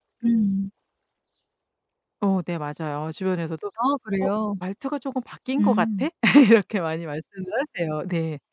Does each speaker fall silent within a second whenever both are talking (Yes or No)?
Yes